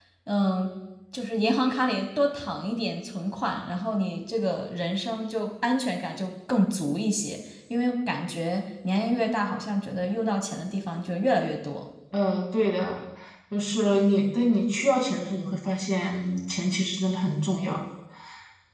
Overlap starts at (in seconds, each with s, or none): none